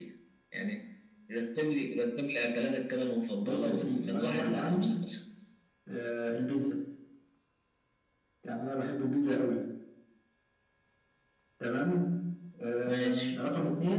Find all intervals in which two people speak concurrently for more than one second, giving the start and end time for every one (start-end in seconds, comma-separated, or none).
3.4-5.0